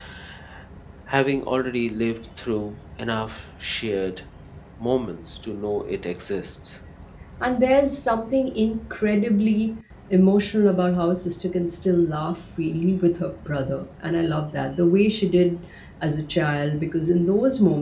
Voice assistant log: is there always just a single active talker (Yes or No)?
Yes